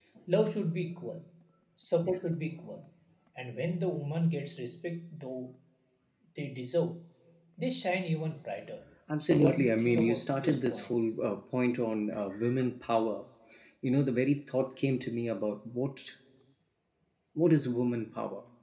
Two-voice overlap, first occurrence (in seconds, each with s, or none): 9.2 s